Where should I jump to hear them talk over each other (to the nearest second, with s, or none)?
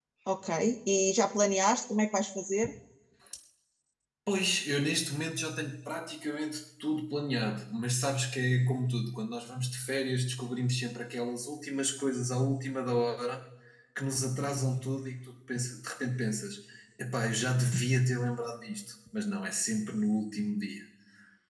none